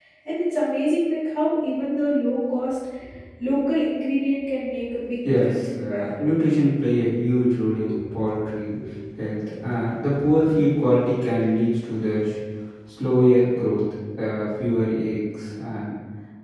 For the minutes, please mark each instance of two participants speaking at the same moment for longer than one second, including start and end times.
5.2-6.5

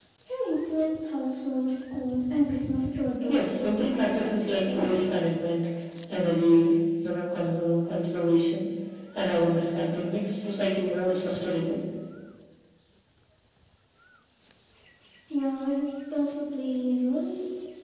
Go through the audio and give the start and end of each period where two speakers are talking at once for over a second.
3.3-4.9

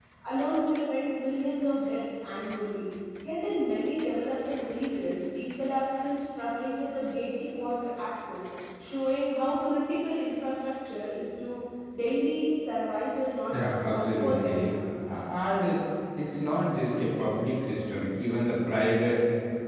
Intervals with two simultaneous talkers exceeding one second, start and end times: 13.5-14.7

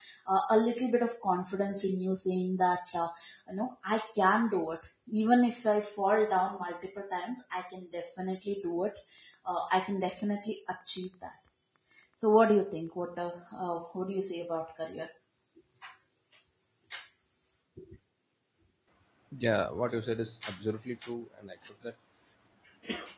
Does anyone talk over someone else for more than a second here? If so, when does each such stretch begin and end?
none

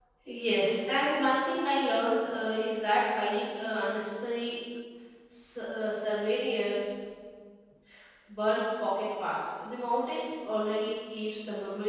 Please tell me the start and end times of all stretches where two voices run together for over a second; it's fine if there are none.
none

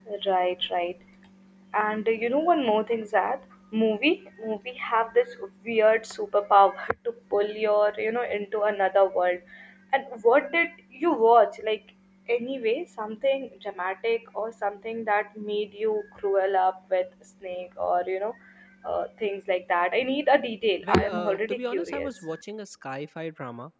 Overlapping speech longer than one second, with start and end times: 20.8-22.1

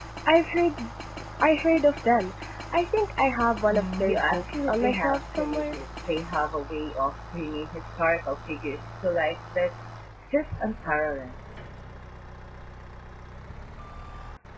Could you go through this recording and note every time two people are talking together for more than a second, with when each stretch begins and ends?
3.7-5.8

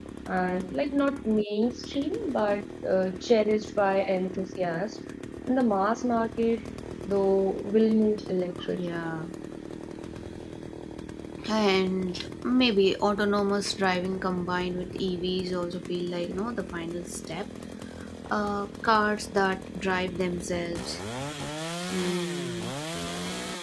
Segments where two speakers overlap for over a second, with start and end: none

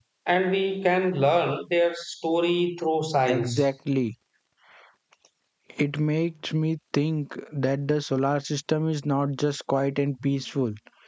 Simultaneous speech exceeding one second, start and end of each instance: none

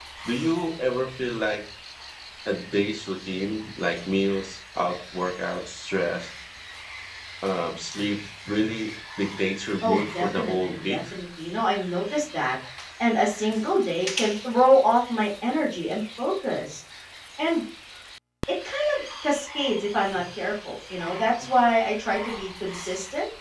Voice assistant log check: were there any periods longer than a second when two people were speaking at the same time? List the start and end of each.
9.8-11.0

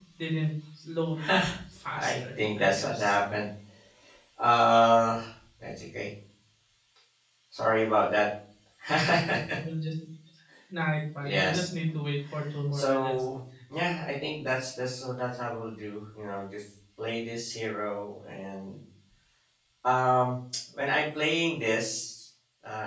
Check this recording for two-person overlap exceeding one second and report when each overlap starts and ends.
1.9-3.2

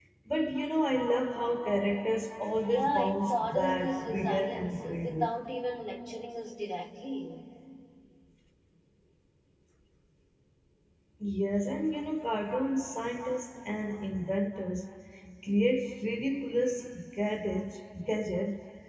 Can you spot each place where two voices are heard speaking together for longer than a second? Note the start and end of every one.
2.7-5.3

